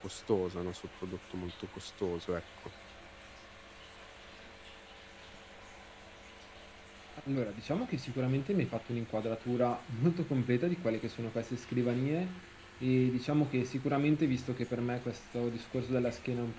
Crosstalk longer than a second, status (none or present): none